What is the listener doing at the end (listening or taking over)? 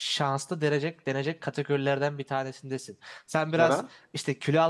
listening